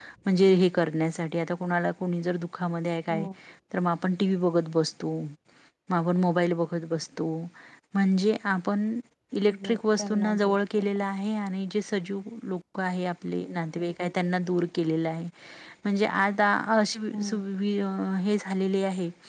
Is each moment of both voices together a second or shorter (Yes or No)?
No